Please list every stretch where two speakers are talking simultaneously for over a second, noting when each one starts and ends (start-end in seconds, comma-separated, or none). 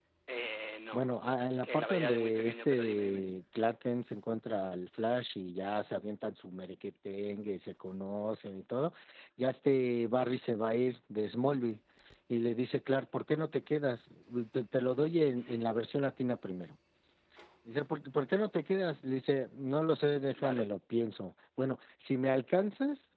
1.5-3.2